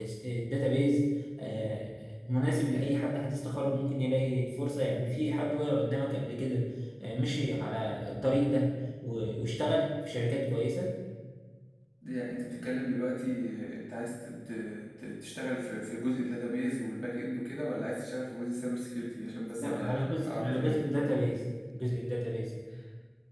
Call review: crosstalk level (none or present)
present